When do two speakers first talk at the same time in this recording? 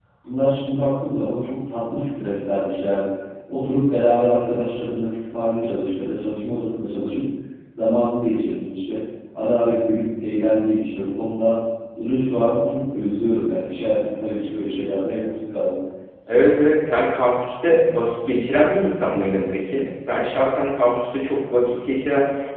none

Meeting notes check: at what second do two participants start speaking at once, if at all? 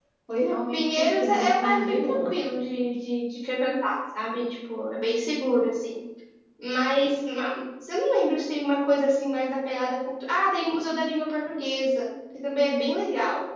0.7 s

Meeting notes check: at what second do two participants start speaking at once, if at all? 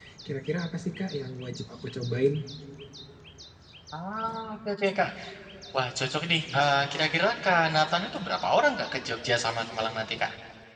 none

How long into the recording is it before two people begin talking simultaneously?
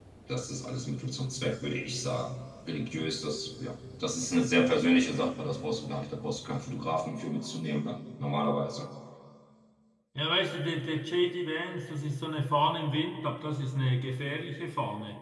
none

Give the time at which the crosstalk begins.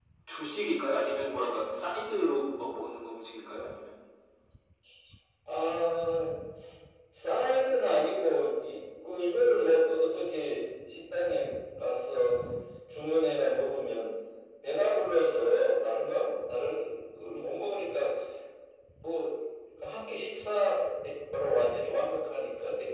none

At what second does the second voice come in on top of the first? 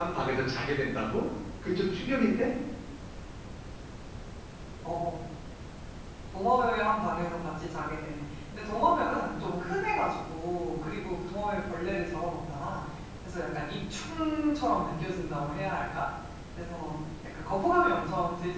none

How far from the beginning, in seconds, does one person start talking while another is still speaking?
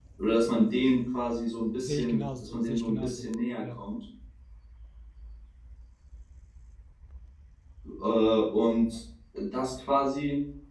1.8 s

